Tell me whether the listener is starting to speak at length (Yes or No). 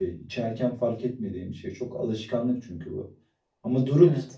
No